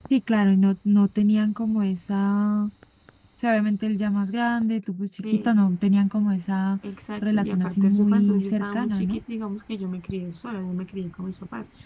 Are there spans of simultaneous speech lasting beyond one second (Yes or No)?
Yes